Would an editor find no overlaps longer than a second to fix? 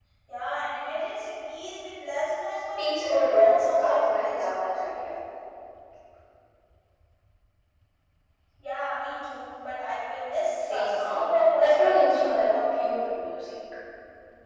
No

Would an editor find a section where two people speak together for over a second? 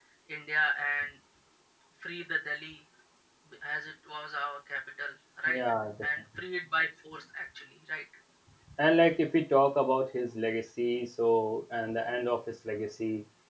No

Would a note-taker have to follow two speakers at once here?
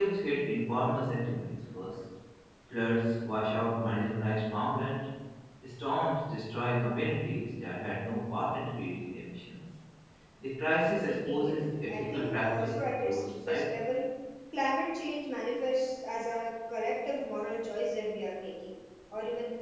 Yes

